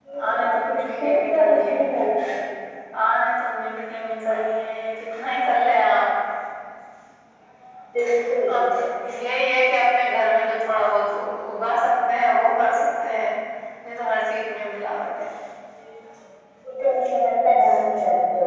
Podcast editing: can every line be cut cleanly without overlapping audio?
No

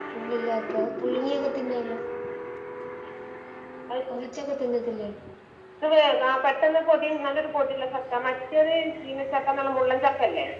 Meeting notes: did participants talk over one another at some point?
No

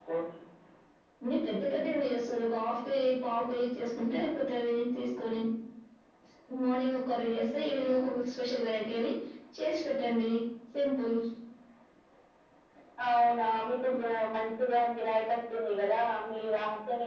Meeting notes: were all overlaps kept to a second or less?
Yes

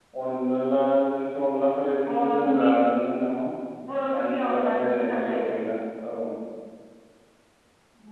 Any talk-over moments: Yes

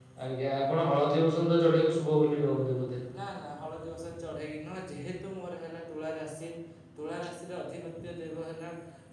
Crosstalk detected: No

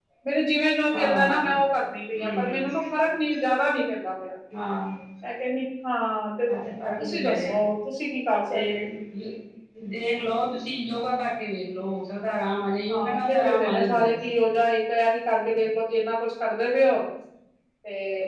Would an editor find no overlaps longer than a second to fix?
No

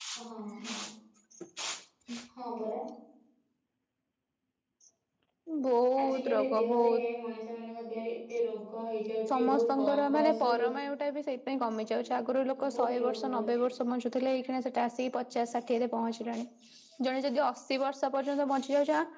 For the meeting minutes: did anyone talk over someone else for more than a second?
Yes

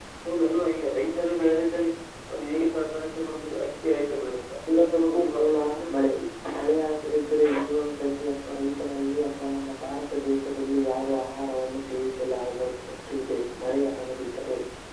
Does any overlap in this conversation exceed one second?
No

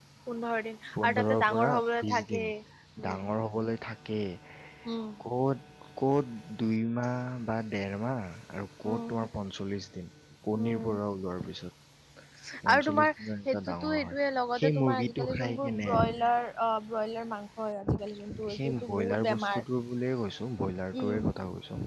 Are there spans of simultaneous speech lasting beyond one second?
Yes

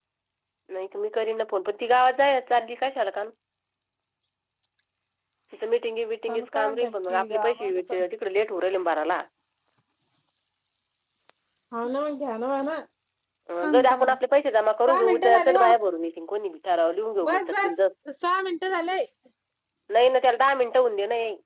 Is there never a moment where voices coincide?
No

